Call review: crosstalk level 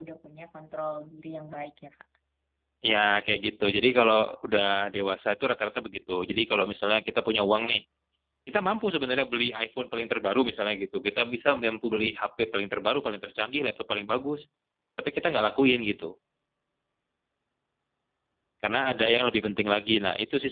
none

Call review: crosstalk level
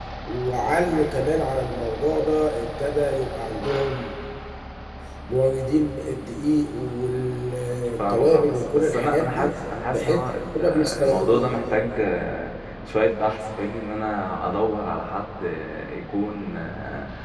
present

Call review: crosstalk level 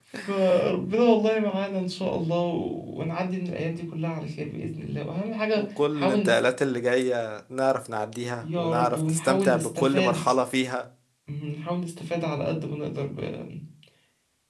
present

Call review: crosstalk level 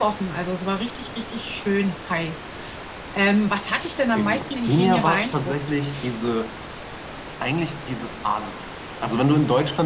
present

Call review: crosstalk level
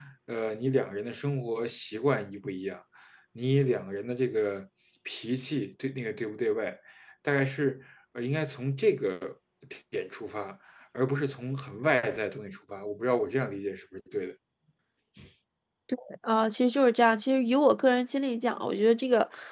none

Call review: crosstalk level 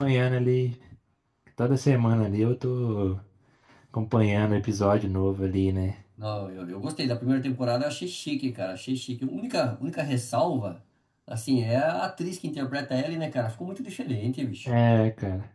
none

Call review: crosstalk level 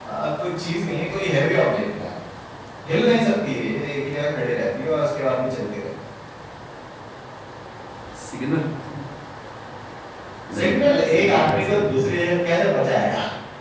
present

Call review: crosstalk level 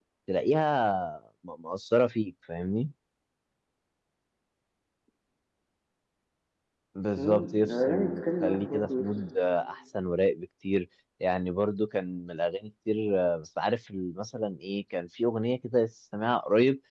present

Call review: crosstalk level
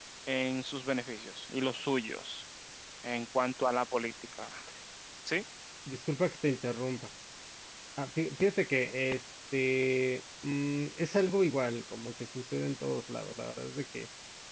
none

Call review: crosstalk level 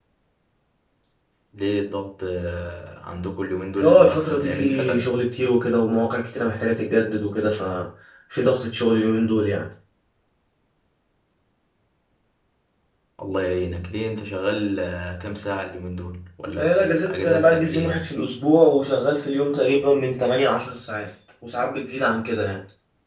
present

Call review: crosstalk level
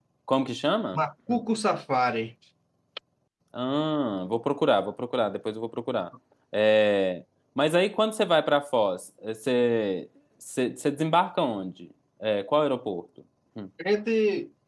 none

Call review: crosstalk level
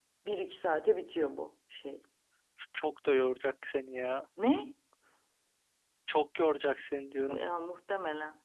none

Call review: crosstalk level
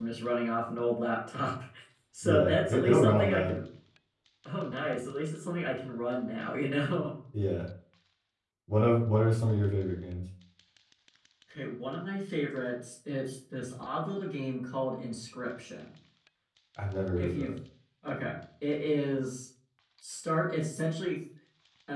present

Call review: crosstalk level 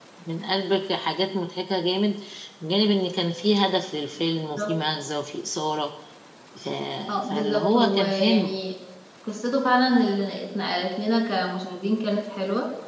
present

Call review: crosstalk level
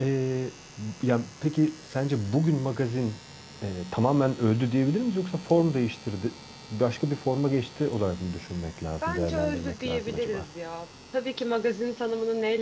present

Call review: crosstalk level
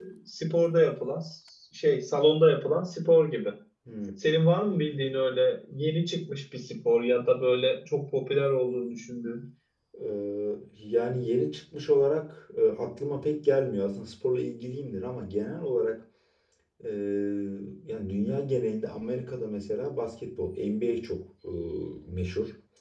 none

